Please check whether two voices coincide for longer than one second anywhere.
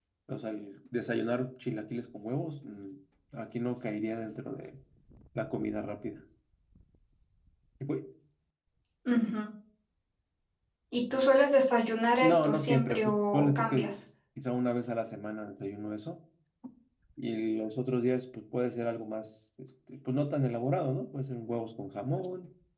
Yes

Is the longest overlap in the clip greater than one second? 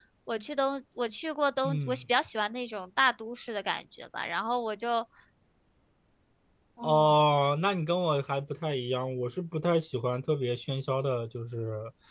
No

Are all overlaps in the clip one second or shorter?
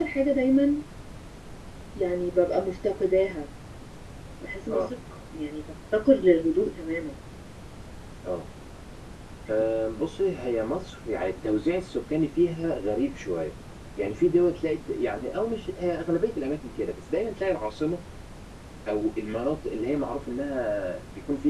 Yes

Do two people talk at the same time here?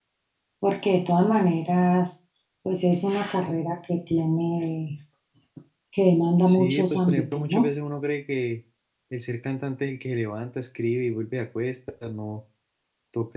Yes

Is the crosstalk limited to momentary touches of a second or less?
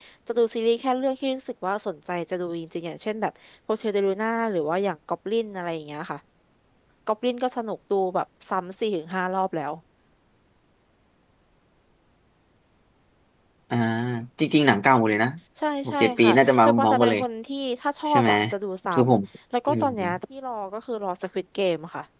No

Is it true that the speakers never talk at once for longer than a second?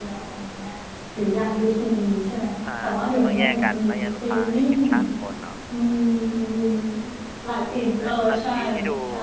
No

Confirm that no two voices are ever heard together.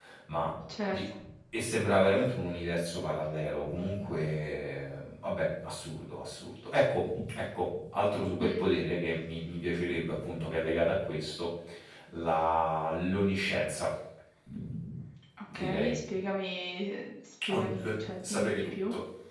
No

